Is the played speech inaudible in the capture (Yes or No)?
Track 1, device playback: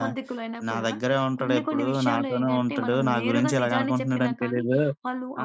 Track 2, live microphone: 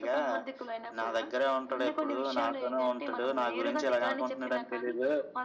No